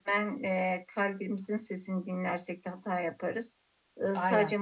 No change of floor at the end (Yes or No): Yes